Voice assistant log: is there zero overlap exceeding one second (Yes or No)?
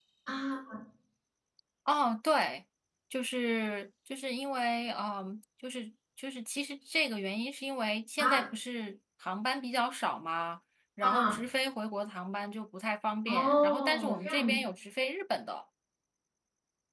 No